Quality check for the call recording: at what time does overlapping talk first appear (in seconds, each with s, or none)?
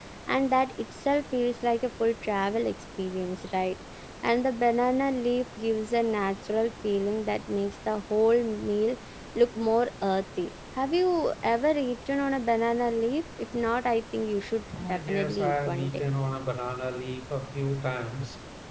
14.7 s